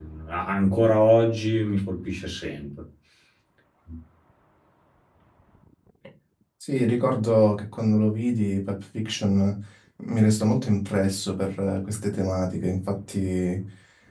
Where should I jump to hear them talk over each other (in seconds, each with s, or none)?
none